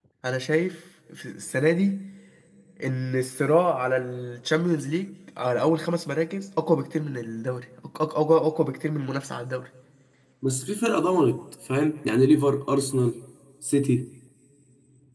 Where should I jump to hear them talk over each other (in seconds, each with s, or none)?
none